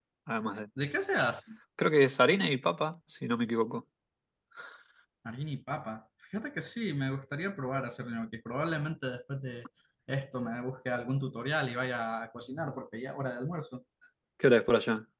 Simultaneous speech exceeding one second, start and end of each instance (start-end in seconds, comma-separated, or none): none